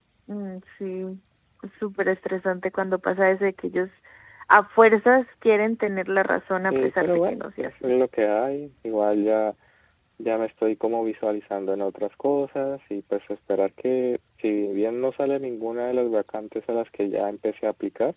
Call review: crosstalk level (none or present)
present